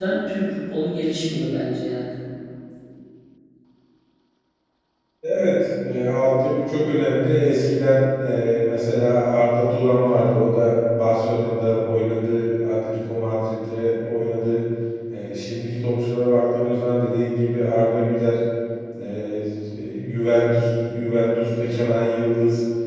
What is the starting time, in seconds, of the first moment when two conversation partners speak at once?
none

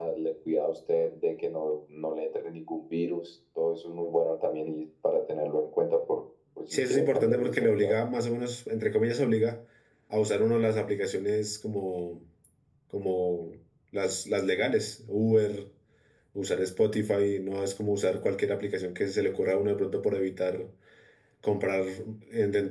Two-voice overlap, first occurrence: 6.7 s

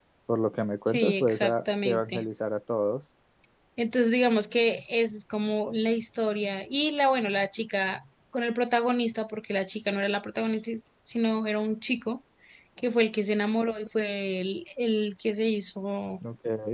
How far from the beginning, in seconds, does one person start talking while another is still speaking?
0.9 s

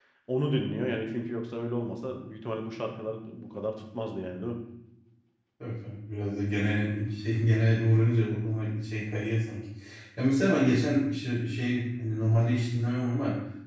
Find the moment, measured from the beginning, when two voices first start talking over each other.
none

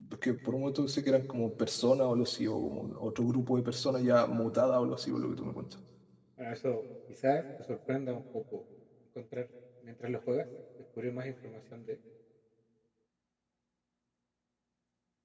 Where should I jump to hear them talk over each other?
none

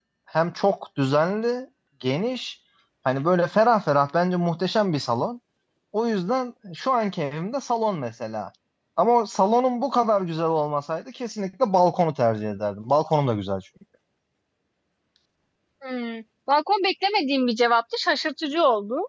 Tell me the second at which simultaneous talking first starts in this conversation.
none

